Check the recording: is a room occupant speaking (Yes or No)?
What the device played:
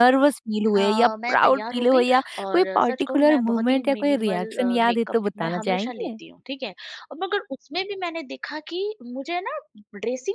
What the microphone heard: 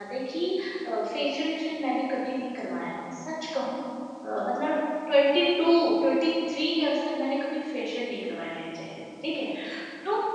Yes